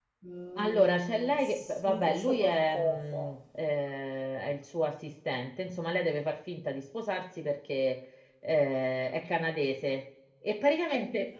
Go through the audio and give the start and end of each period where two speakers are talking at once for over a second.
0.6-3.2

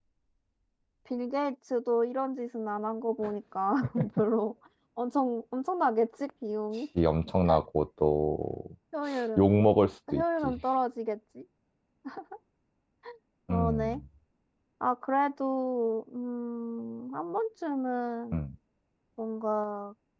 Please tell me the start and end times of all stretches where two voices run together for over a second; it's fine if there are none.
none

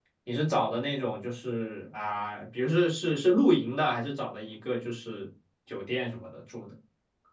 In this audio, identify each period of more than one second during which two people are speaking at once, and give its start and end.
none

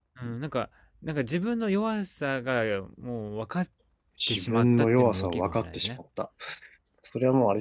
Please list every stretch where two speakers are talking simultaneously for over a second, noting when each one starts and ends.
4.3-5.9

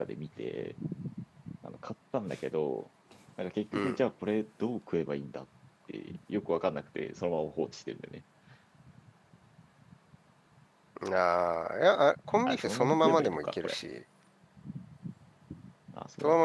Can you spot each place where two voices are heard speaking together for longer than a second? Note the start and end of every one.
12.5-13.8

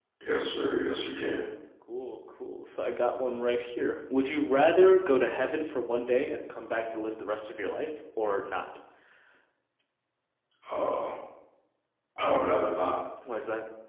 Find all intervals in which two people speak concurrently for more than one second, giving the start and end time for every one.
none

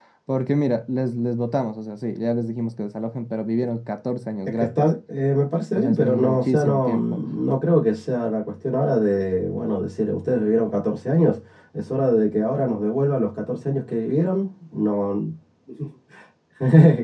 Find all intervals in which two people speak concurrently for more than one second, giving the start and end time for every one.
5.7-7.0

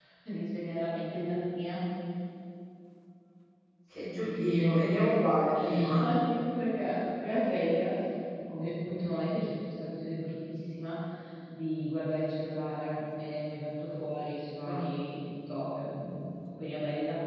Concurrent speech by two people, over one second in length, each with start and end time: none

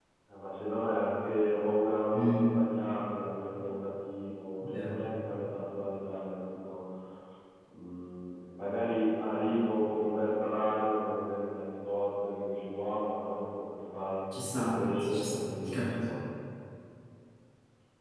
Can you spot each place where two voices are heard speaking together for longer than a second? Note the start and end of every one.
14.5-16.0

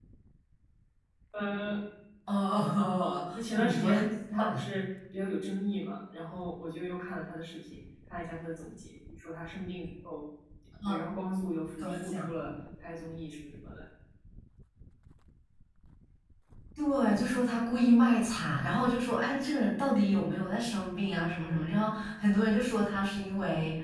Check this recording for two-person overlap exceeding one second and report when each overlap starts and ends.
2.8-4.0

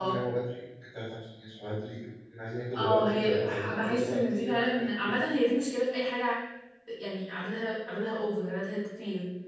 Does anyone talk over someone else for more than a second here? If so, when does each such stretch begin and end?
2.8-5.2

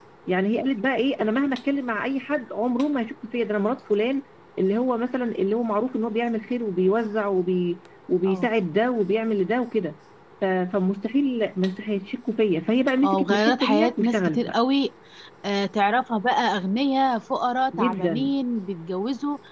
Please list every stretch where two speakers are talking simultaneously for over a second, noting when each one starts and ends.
13.0-14.5

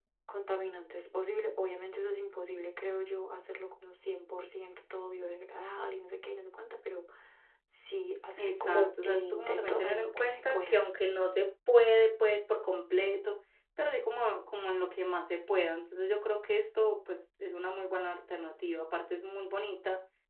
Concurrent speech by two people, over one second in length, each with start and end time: 8.4-10.8

